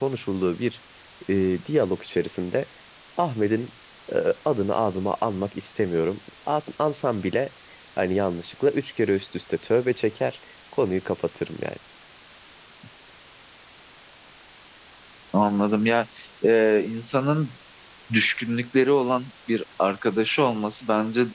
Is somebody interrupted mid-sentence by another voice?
No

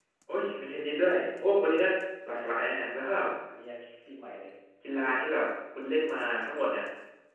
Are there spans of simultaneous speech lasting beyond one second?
No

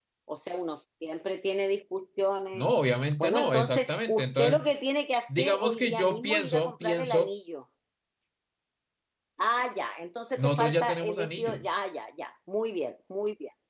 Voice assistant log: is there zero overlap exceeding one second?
No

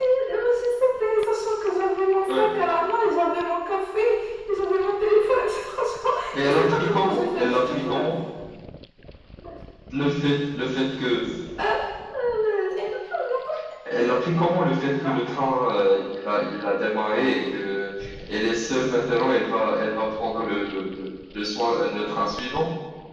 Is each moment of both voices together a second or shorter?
No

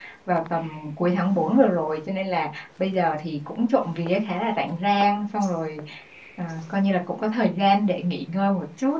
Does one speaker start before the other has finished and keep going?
No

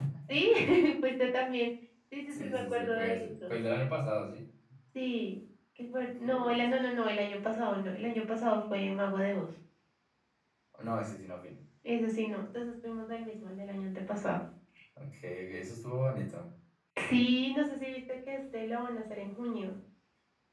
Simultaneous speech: Yes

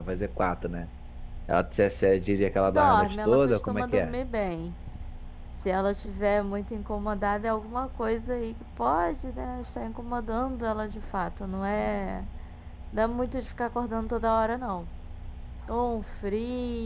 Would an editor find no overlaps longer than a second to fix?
No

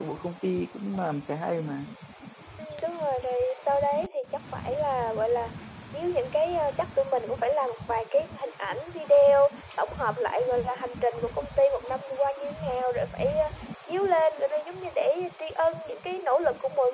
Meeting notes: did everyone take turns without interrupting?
Yes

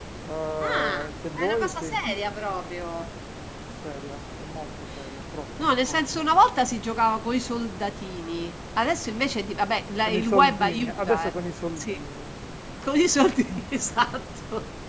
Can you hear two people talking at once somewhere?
Yes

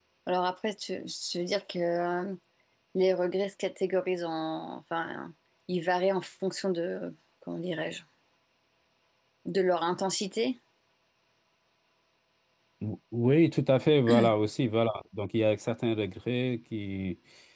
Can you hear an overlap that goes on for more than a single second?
No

